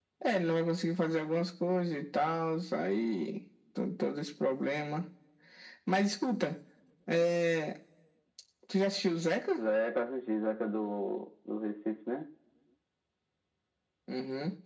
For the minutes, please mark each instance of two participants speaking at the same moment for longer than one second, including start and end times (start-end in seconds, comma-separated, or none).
none